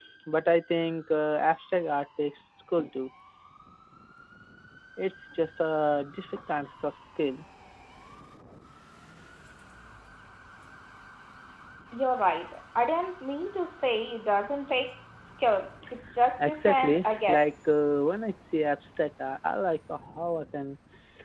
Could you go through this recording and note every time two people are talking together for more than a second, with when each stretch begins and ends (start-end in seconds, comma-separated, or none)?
16.4-17.7